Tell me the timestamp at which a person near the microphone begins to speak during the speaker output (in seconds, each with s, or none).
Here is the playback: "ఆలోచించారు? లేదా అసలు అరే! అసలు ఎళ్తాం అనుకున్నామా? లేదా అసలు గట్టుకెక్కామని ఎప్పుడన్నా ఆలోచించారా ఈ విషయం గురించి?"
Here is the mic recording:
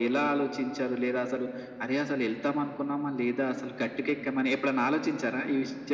none